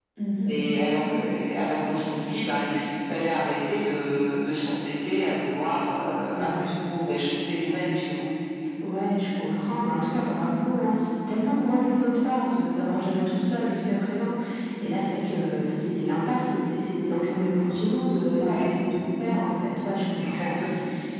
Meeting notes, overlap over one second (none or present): none